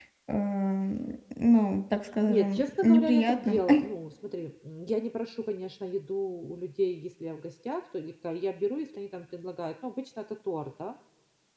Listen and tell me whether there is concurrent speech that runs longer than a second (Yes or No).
Yes